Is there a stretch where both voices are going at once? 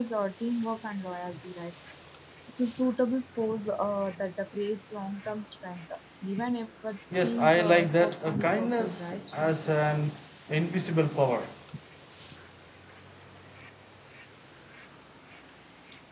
Yes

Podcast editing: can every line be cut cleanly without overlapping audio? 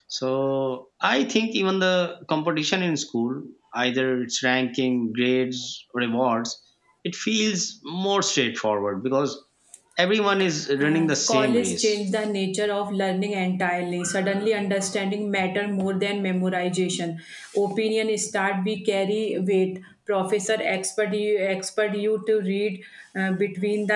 No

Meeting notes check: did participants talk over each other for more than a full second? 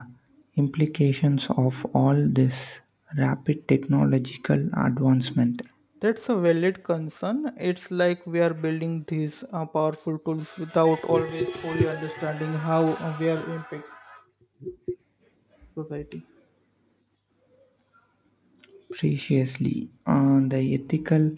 No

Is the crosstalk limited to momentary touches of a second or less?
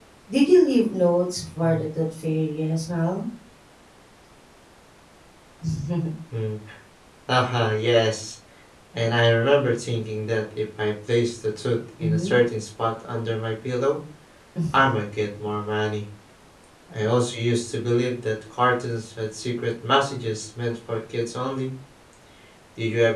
Yes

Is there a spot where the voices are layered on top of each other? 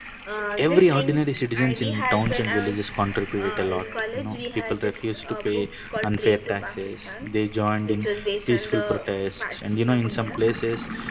Yes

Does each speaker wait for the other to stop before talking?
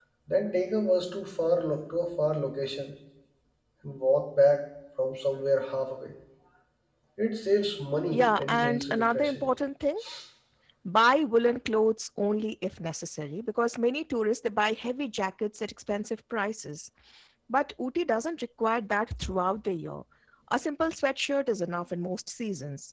No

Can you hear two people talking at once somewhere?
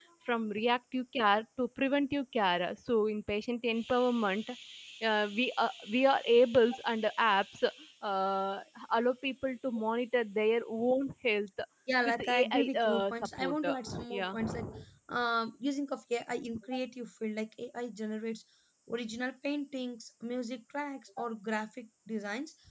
Yes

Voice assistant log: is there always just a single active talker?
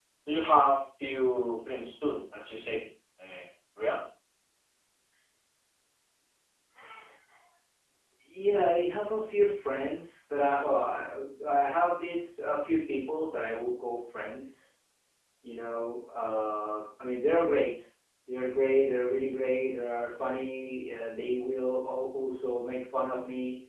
Yes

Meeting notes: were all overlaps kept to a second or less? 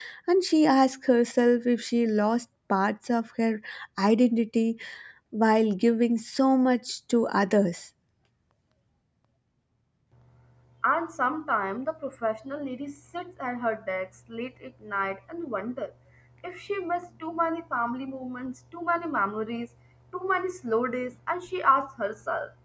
Yes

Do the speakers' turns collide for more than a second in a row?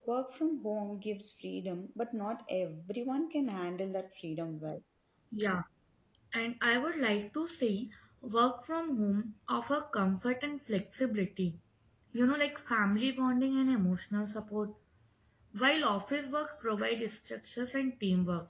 No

